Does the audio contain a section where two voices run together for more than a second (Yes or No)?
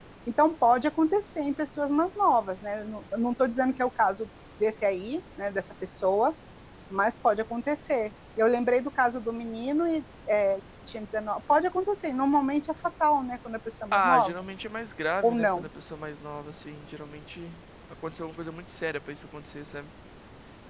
No